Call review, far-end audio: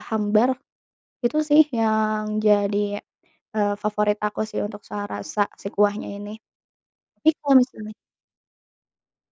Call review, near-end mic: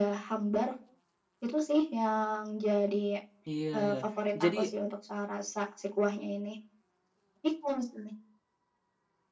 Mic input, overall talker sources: both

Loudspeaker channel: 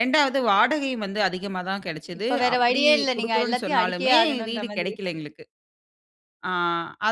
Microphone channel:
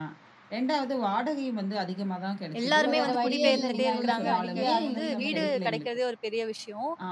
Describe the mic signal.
both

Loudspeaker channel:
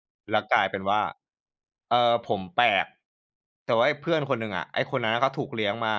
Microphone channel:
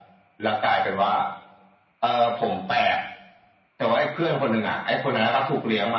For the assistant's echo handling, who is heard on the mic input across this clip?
echo only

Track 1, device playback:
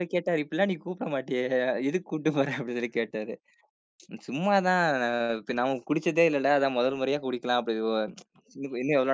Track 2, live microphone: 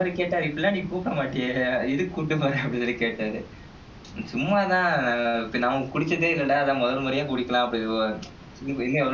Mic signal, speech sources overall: echo only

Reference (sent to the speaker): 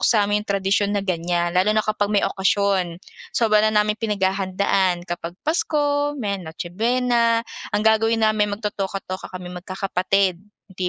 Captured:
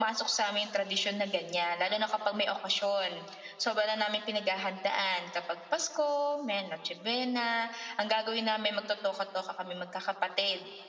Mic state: echo only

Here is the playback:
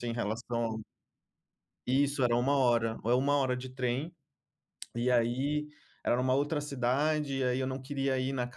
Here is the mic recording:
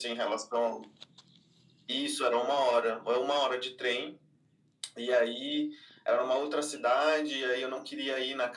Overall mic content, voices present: echo only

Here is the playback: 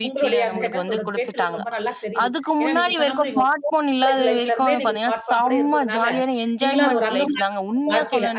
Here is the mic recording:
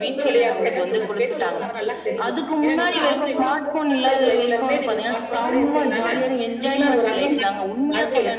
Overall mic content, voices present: both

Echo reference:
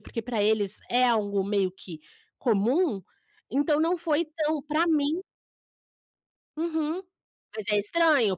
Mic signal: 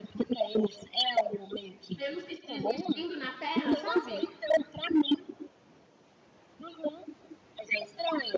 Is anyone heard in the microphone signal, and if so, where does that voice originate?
both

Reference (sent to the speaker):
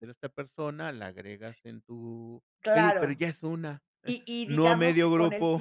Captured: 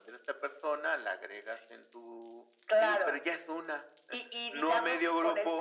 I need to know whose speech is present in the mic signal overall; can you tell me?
echo only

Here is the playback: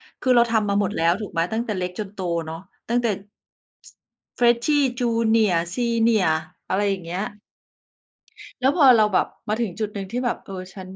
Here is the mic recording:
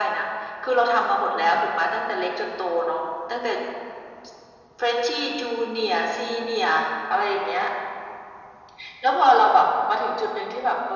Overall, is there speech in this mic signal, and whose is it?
echo only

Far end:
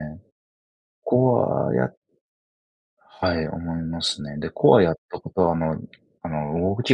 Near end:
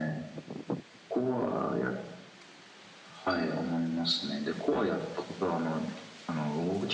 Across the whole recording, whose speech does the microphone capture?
echo only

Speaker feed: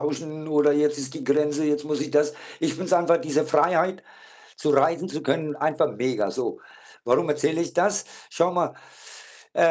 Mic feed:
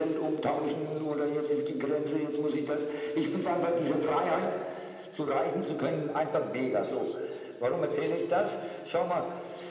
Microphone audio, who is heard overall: echo only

